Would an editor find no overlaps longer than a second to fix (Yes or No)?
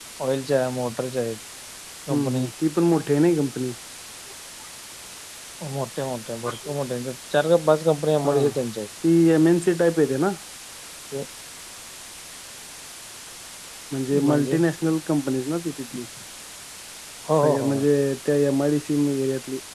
Yes